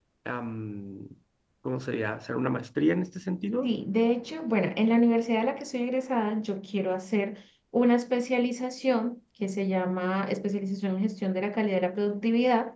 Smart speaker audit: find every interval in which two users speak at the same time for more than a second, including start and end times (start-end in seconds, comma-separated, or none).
none